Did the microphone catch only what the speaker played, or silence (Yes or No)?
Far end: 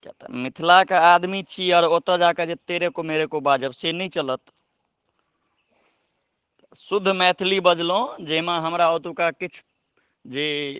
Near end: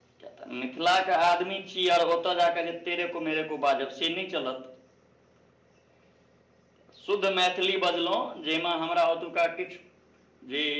Yes